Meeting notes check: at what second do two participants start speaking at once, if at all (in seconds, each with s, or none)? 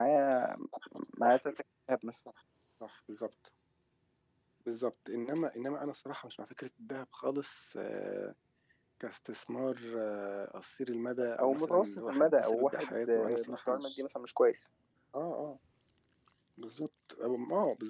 11.4 s